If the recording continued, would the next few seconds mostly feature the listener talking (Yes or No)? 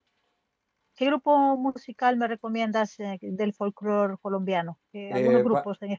Yes